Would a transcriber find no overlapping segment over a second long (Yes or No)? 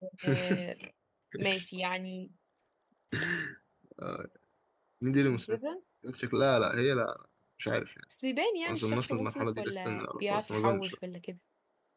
No